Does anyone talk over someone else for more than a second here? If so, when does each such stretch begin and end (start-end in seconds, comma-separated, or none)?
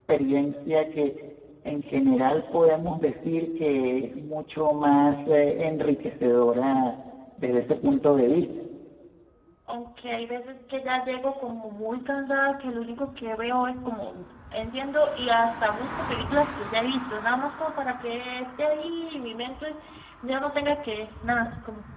none